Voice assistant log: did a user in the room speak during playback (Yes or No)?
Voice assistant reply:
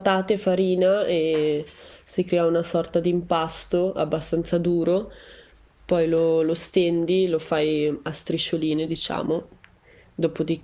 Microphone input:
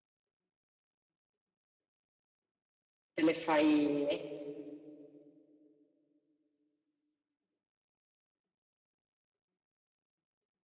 Yes